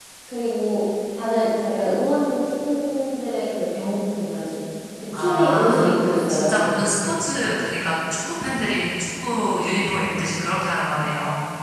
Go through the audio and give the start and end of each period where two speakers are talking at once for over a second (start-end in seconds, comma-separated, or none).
5.1-6.7